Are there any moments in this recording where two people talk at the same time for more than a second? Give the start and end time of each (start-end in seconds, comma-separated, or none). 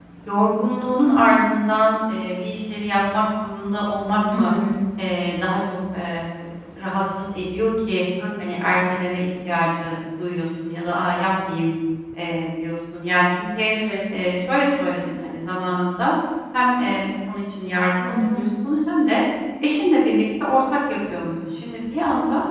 none